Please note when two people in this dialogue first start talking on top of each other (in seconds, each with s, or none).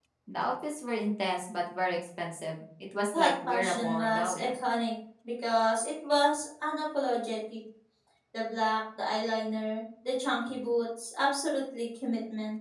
3.1 s